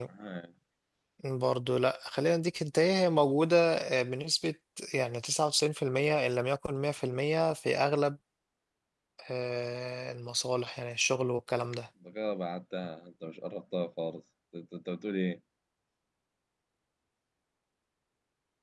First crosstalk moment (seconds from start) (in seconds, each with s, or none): none